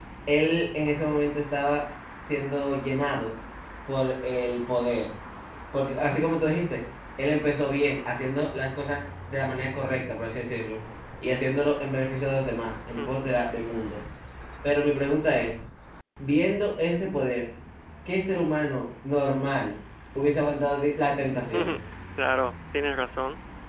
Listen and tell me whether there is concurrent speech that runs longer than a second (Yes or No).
No